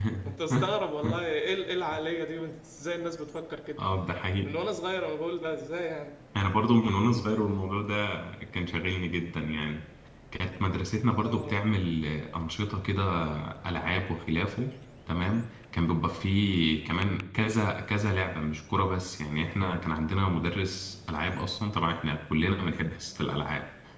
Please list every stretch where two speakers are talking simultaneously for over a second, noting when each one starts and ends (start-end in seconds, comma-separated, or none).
none